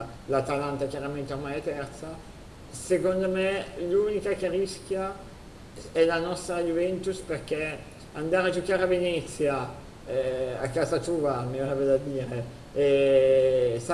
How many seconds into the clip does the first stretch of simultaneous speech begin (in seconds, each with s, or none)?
none